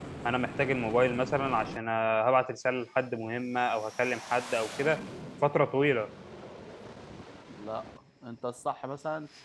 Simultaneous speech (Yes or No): No